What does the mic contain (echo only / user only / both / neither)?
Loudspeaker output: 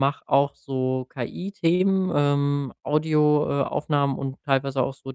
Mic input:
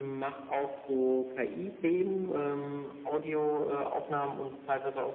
echo only